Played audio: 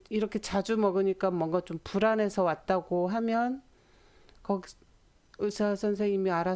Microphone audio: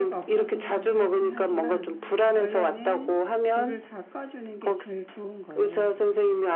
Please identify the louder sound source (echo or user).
echo